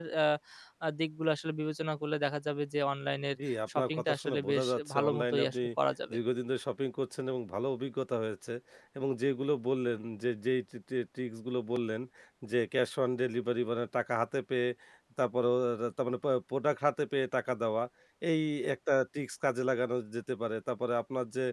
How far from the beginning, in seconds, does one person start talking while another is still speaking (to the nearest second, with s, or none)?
4 s